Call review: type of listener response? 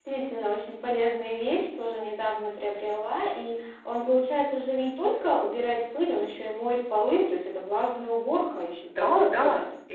taking over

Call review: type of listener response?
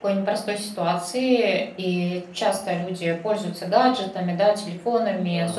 listening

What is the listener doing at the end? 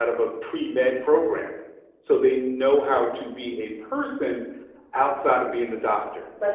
taking over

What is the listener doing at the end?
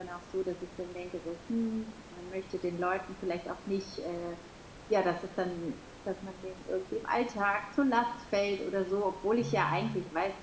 listening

